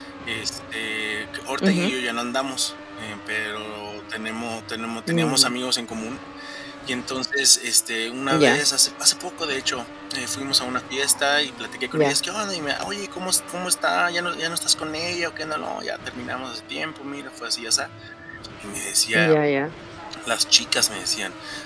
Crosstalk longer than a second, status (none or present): none